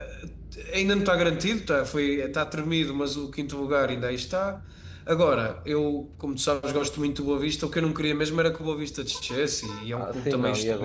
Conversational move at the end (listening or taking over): taking over